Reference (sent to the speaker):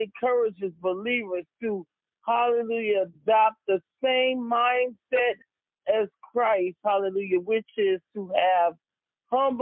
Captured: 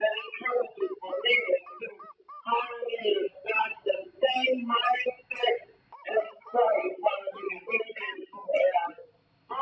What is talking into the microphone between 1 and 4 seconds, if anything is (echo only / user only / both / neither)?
echo only